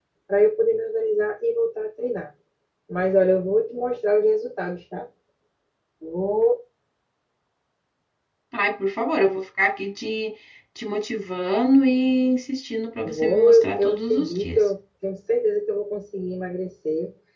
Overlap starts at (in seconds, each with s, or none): 13.1 s